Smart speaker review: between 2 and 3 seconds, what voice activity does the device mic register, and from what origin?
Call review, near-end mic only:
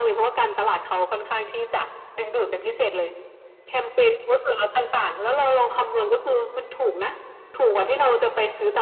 echo only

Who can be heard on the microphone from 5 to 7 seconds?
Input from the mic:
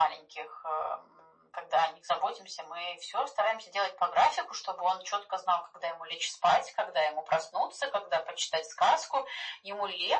echo only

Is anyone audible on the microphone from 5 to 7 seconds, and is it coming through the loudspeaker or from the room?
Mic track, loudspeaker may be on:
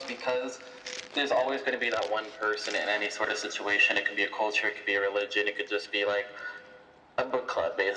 echo only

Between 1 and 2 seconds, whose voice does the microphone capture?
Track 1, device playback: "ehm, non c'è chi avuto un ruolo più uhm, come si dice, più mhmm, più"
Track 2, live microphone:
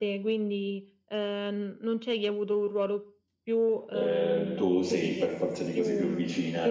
echo only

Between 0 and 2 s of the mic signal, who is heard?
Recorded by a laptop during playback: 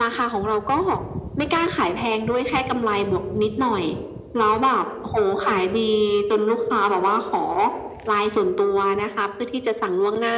echo only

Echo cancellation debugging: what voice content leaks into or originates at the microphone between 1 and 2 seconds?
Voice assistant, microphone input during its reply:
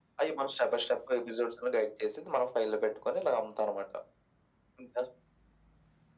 echo only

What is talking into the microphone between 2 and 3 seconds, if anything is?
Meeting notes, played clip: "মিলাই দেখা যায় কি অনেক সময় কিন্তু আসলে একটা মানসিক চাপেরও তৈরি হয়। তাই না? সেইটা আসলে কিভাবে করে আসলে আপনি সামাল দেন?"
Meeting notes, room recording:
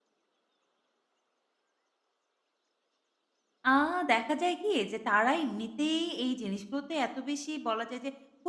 neither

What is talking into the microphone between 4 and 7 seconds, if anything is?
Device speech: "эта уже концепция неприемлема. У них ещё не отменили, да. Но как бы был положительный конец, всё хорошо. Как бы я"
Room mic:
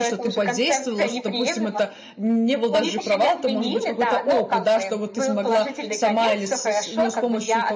both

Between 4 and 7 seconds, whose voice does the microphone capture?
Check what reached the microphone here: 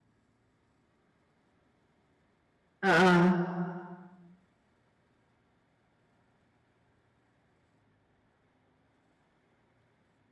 neither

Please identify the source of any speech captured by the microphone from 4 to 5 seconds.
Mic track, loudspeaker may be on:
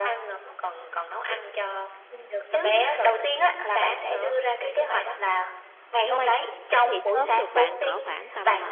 echo only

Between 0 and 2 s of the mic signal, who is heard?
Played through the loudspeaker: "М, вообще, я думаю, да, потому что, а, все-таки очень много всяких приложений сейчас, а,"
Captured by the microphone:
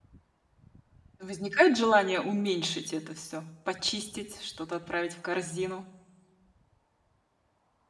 user only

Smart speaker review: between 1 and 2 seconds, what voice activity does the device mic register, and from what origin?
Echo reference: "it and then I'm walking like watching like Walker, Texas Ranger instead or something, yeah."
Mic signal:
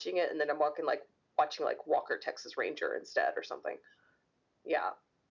echo only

